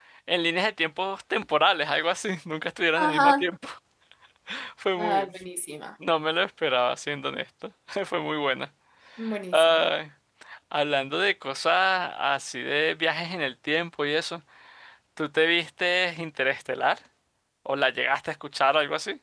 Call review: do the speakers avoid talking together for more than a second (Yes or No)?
Yes